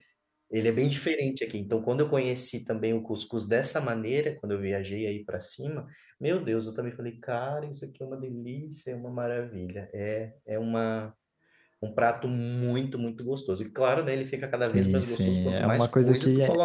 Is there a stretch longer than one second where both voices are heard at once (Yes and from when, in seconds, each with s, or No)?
Yes, from 14.7 s